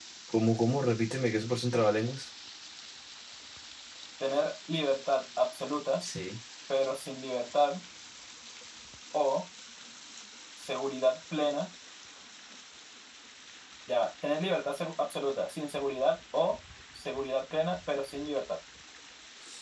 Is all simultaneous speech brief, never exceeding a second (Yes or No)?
Yes